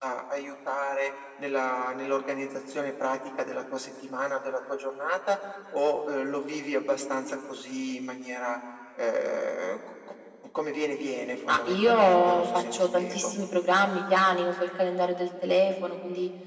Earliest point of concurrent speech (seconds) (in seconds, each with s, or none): 11.5 s